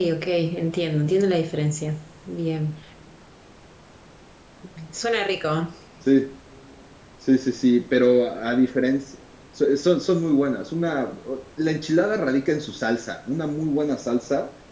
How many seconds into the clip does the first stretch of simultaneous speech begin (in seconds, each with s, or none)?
none